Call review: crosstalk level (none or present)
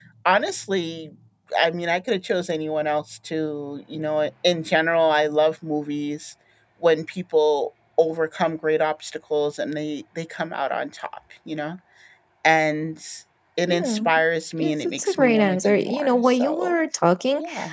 present